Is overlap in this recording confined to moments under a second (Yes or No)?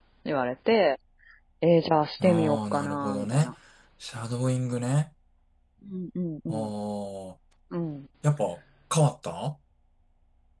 No